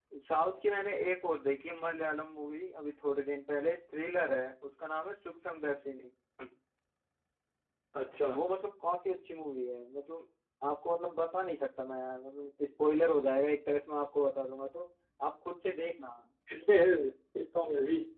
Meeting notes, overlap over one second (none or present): none